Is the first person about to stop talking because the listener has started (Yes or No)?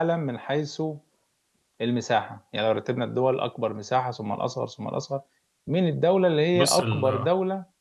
No